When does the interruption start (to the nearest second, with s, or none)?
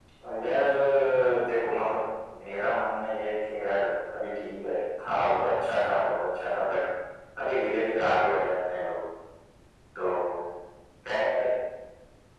none